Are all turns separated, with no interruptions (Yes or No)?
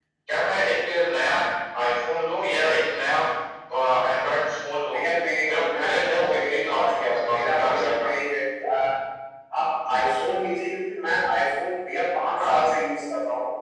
No